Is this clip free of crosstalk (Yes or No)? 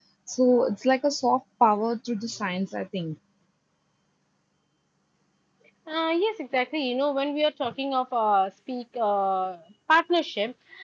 Yes